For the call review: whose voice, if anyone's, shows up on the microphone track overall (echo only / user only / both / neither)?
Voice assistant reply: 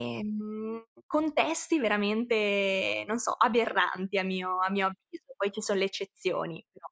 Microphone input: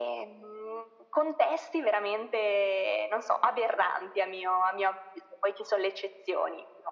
echo only